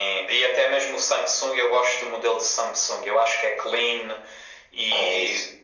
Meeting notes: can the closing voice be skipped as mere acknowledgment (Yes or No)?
Yes